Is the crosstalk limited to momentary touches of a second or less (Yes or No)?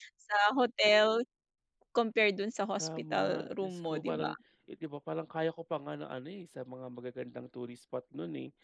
No